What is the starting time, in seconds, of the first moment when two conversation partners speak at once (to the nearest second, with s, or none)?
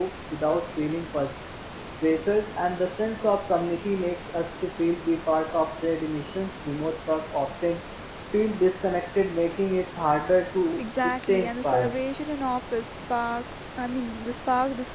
11 s